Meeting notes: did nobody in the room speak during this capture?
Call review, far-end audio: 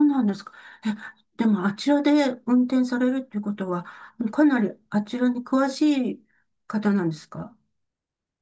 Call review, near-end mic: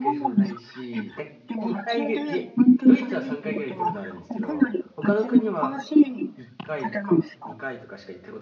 No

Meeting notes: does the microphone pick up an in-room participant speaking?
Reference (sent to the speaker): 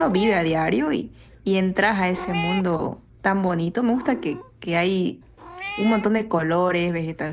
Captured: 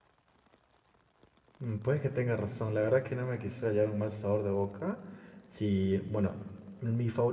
Yes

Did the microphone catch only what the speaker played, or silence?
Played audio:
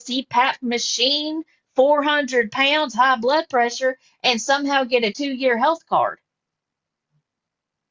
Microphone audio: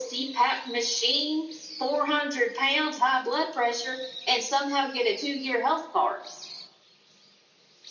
Yes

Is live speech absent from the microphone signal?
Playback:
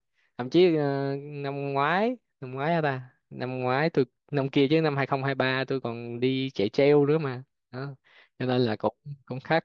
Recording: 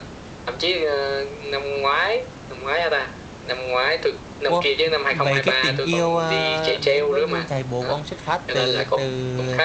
No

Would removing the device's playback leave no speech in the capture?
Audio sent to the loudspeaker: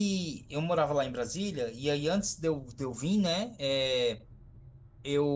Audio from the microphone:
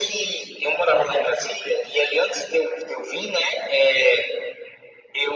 Yes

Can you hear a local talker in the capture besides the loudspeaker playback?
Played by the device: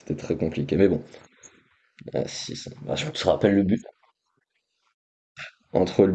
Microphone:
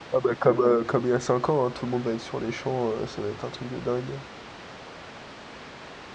Yes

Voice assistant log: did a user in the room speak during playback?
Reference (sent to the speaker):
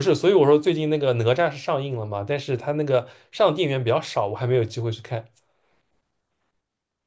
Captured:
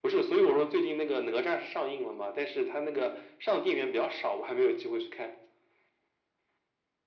No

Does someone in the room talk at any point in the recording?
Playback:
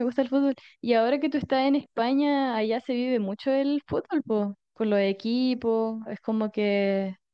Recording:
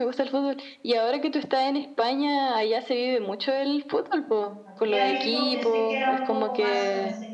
Yes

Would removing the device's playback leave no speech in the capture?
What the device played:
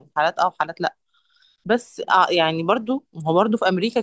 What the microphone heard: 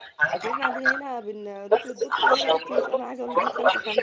No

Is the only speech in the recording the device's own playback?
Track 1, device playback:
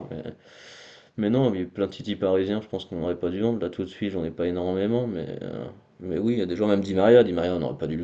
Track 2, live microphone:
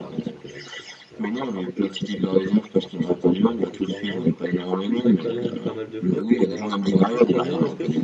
No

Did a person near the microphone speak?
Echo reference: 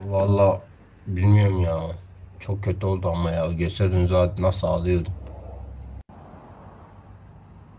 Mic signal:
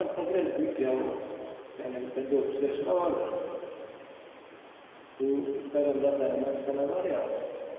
Yes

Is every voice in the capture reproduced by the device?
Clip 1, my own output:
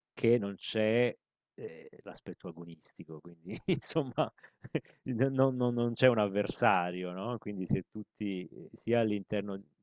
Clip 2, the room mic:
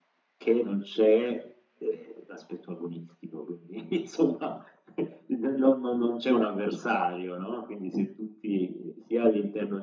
Yes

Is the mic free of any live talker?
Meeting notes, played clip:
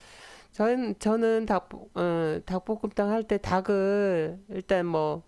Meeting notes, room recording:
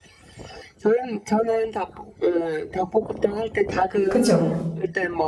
No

